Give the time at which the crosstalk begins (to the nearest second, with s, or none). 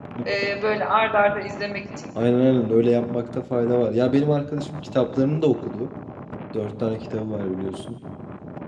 none